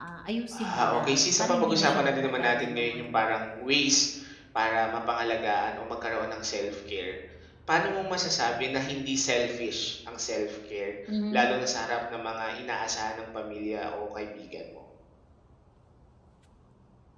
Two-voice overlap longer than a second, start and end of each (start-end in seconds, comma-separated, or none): 0.7-3.2